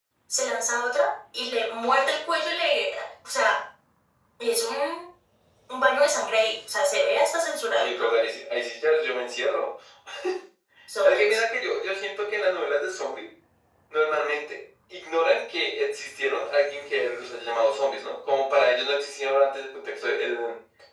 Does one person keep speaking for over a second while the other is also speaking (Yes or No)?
No